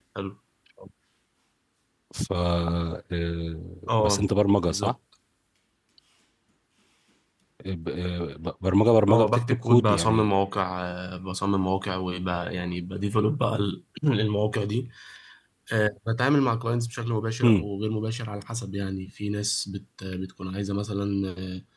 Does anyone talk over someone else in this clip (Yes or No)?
Yes